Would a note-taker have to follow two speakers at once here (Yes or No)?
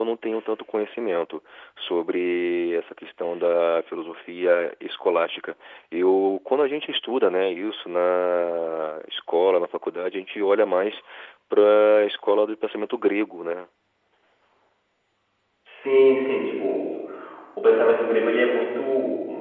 No